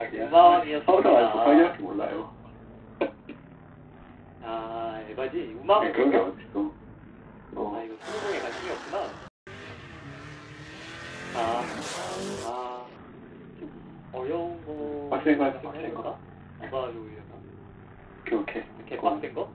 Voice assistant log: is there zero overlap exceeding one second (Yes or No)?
No